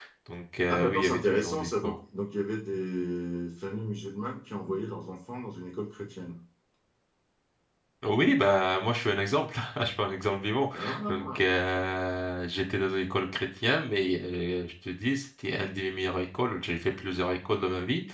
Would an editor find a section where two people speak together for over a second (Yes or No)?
Yes